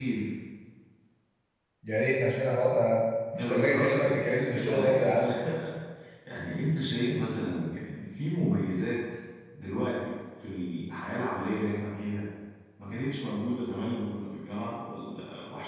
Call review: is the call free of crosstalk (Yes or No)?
No